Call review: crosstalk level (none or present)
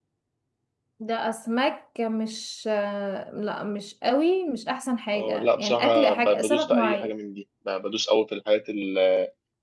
present